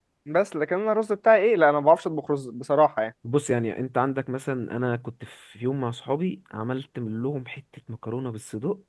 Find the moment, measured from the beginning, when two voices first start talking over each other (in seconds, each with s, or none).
none